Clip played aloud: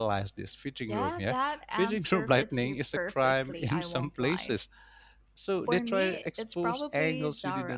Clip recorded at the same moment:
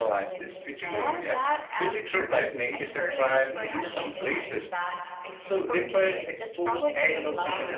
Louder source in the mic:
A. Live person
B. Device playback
B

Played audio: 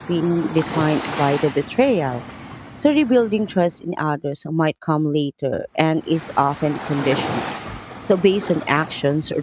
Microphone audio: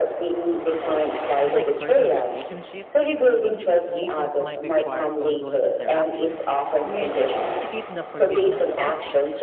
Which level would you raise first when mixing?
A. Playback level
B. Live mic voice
B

